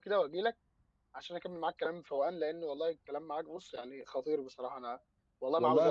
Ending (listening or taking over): taking over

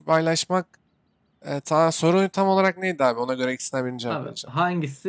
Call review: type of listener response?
taking over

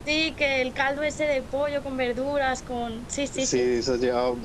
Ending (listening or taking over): taking over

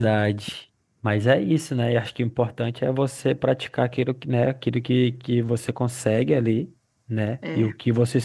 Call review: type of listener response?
listening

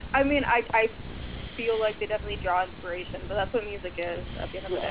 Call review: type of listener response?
taking over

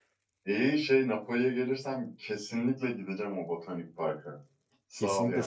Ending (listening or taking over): taking over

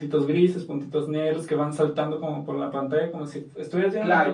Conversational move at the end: taking over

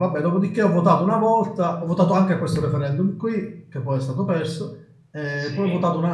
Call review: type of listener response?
listening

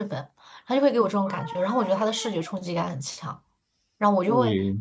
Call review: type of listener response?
listening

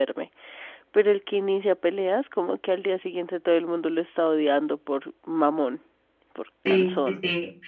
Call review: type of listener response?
taking over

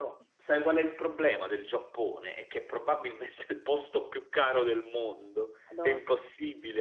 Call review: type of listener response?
listening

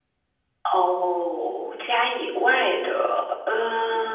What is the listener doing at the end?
taking over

